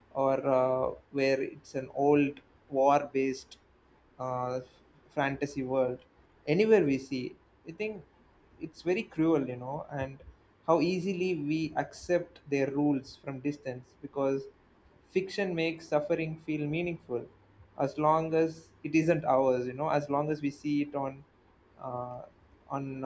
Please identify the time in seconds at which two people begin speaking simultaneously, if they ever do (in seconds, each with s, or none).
none